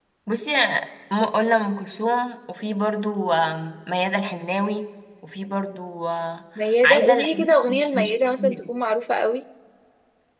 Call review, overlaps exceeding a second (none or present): present